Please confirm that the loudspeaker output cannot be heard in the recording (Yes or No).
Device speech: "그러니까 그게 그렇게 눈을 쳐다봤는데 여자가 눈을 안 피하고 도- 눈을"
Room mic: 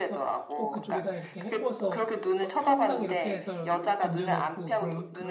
No